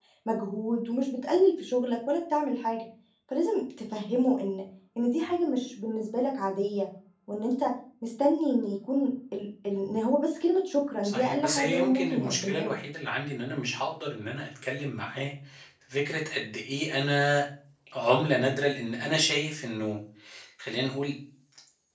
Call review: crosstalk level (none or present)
present